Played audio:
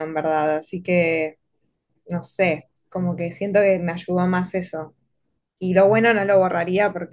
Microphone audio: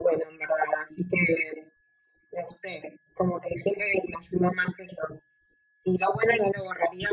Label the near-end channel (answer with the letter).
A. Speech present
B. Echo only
B